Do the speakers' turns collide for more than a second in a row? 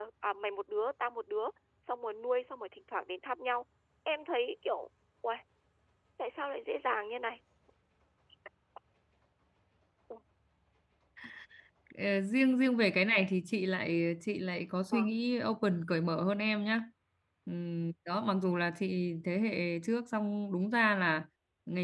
No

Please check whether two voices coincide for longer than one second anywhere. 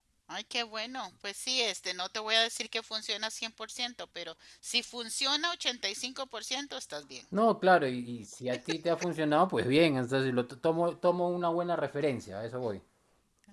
No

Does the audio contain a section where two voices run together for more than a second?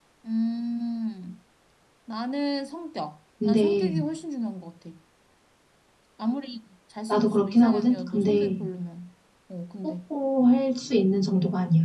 Yes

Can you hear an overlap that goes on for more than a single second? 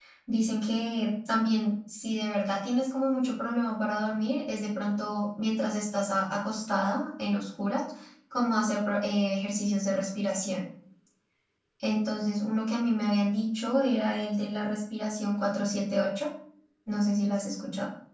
No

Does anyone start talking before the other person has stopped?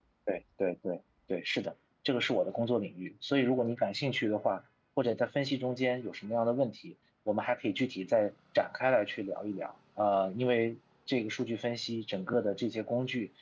No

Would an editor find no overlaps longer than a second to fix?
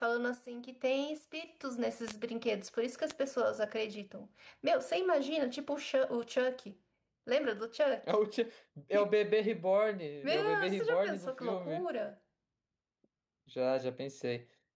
No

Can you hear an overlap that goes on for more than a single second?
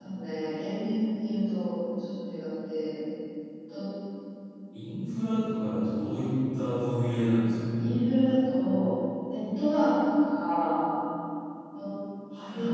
No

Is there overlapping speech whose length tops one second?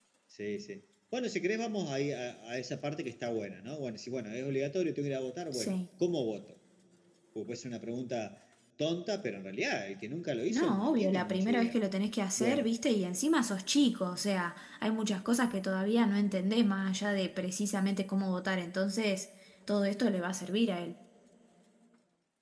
Yes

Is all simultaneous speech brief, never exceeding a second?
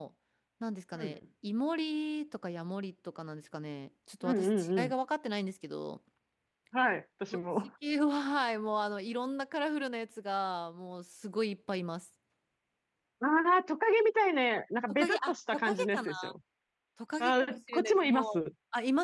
No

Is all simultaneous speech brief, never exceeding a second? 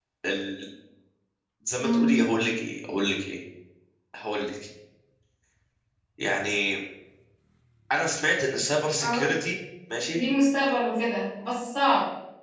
Yes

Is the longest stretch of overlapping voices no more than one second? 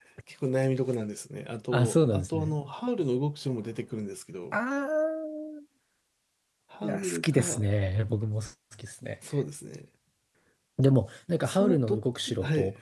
No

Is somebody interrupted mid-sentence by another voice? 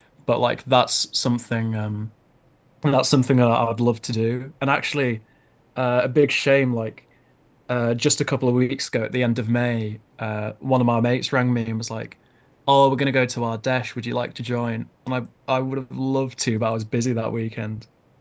No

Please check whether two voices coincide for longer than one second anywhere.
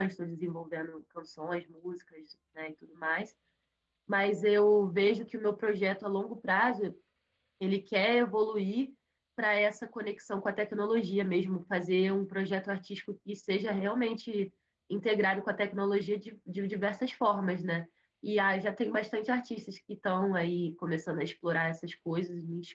No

